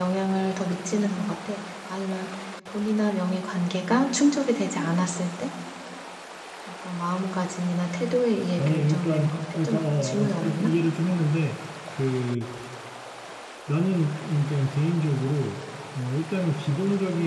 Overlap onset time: 8.6 s

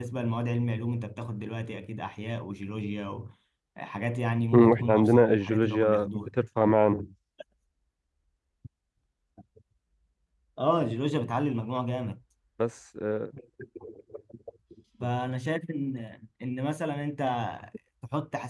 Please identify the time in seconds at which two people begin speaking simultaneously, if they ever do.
4.5 s

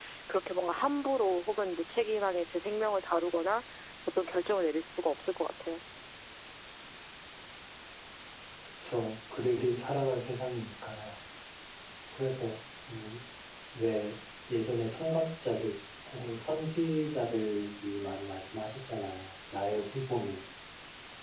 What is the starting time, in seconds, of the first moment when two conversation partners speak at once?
none

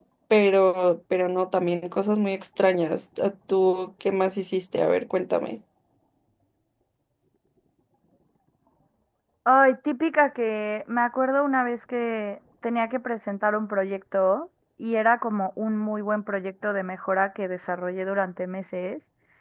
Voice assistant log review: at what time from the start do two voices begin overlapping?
none

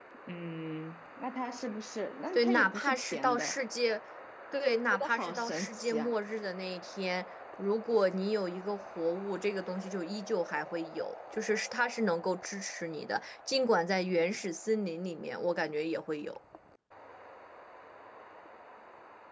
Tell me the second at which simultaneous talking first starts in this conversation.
2.3 s

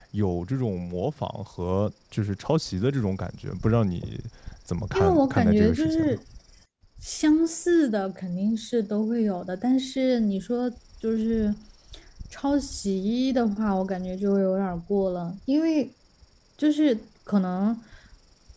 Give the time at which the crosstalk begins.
4.9 s

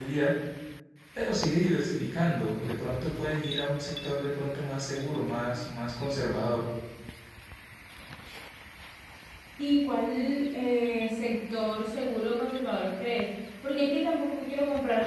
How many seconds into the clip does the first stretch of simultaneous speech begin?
none

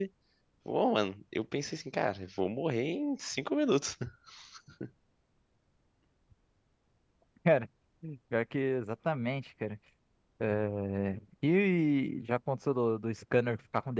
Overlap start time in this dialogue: none

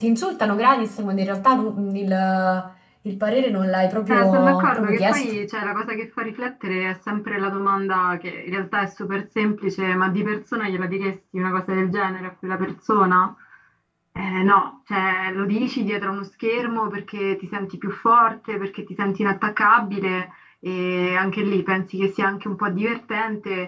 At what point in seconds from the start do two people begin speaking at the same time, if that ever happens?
4.1 s

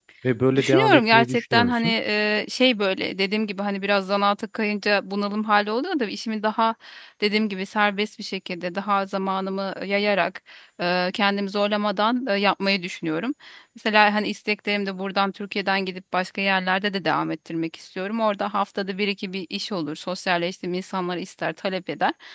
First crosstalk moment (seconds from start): 0.5 s

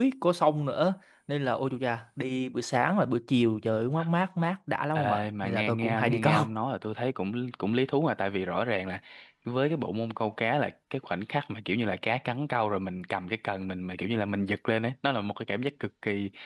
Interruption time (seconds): 5.0 s

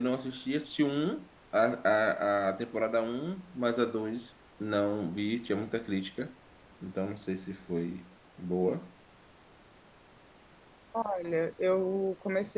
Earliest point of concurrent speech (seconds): none

